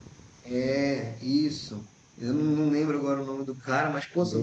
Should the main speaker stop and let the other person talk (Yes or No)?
No